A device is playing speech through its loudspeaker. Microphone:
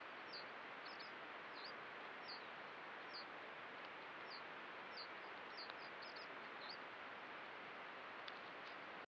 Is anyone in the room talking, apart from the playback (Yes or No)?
No